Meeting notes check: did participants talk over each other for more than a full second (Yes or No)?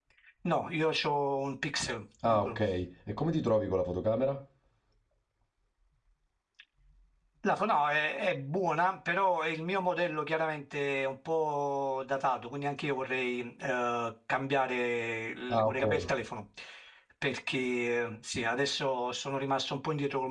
No